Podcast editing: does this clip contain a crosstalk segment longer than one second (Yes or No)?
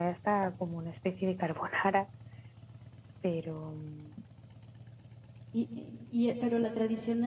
No